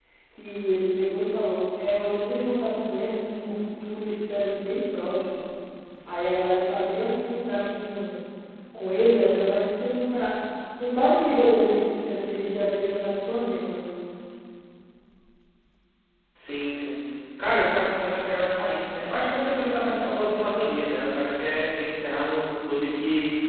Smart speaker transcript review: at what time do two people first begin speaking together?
none

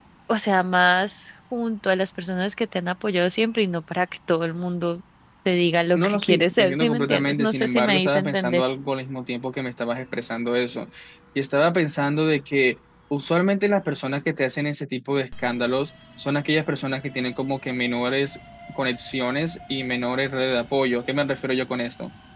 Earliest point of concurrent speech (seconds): 6.0 s

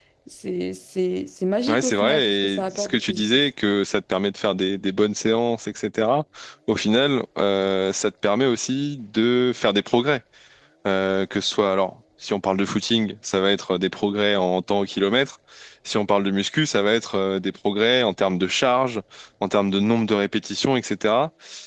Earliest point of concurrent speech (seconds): 1.7 s

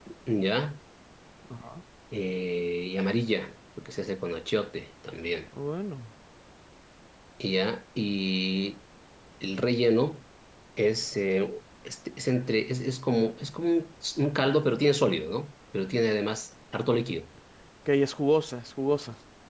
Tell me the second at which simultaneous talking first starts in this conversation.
none

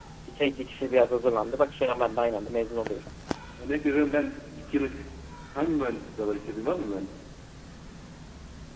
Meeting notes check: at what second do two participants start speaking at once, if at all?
none

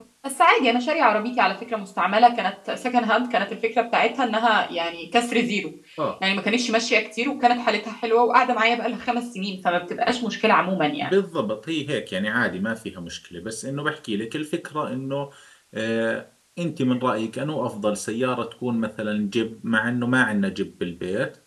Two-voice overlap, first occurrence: none

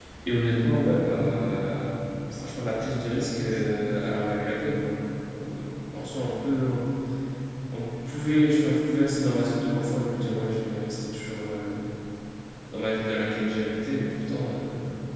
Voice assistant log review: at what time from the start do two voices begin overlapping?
none

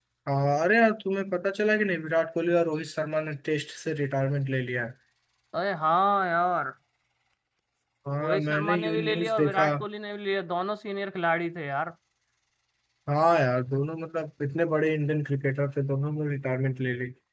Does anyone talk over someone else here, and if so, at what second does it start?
8.2 s

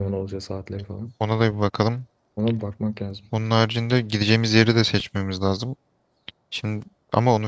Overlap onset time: none

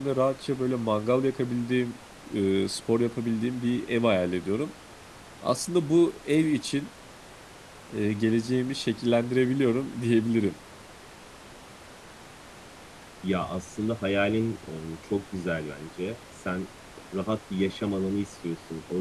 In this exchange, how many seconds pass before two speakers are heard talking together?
none

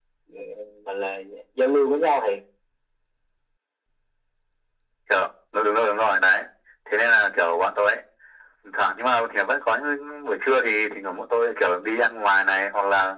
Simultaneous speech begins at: none

